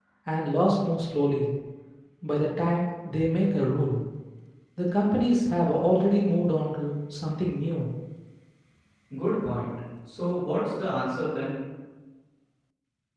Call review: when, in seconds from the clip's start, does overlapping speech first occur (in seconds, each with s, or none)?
none